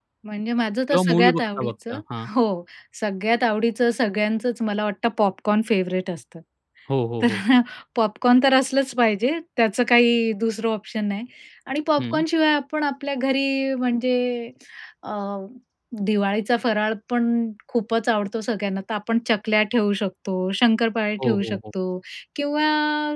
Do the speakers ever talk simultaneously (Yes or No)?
Yes